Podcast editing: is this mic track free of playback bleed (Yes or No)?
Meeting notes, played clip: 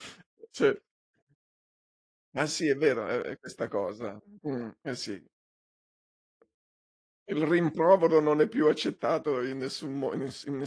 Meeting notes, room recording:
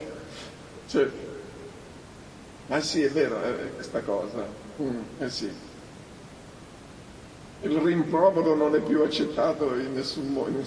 No